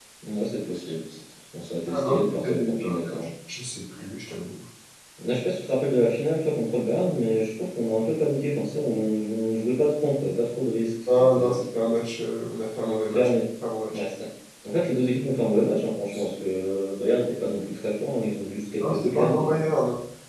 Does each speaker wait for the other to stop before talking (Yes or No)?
No